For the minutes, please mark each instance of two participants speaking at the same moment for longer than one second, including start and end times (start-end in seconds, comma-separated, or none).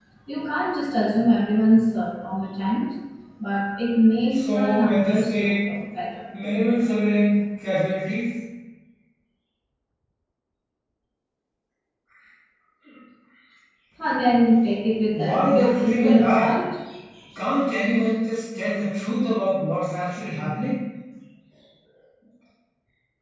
4.3-5.5, 15.1-16.5